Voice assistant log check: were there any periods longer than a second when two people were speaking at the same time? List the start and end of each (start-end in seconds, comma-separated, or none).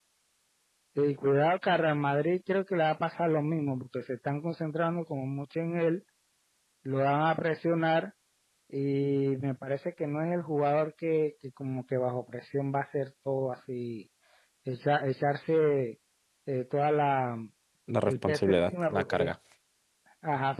18.1-19.3